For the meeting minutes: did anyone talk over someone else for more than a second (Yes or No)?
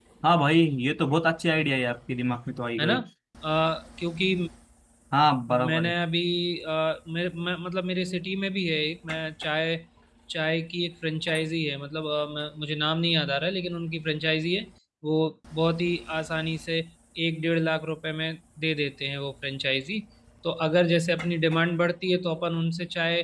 No